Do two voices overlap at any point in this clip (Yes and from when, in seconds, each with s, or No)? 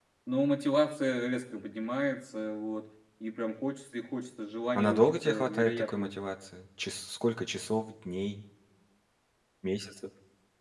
Yes, from 4.8 s